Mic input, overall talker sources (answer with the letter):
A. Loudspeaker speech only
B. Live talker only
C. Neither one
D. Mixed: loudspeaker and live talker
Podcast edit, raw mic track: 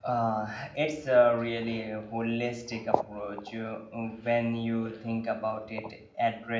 B